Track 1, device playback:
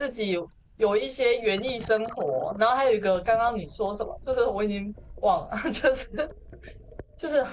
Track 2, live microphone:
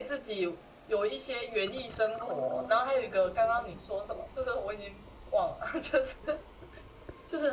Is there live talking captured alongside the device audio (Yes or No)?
Yes